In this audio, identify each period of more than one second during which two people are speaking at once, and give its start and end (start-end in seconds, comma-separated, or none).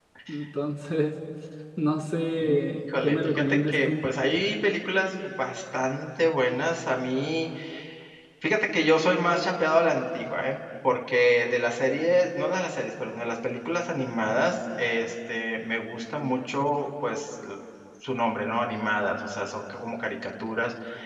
2.4-3.9